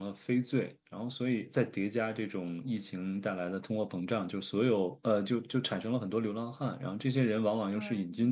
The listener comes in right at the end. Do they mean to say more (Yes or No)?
No